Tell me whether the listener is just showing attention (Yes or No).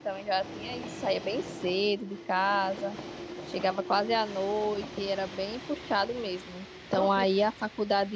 Yes